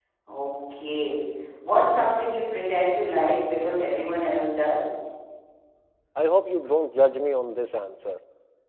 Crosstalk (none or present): none